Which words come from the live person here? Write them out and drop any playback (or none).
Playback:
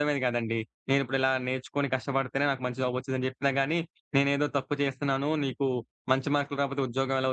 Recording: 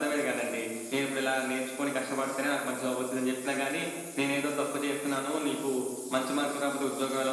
none